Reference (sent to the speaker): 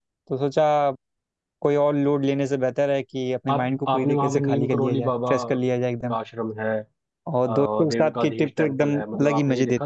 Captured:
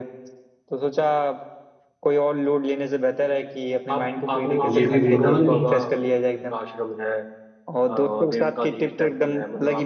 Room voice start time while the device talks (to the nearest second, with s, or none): 5 s